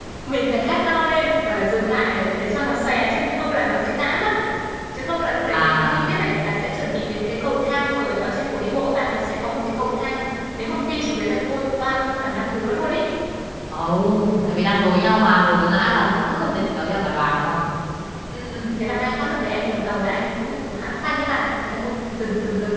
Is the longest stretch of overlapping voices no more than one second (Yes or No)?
Yes